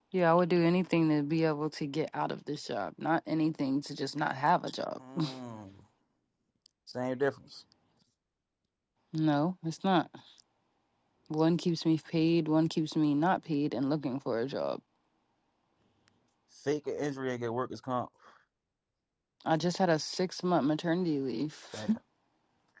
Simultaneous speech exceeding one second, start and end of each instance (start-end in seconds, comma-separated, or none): none